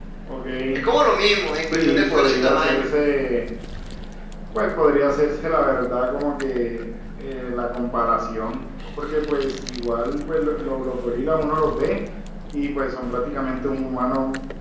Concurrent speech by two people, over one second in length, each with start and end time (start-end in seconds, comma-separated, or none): 1.6-2.9